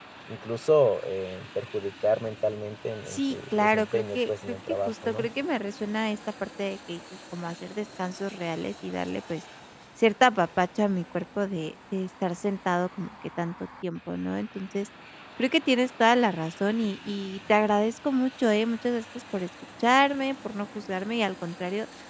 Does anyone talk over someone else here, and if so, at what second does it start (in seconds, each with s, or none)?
3.1 s